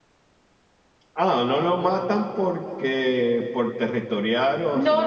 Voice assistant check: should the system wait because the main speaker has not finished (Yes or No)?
No